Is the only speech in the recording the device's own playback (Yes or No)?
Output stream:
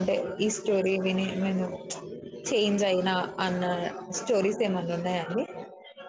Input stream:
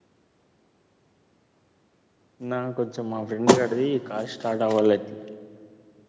No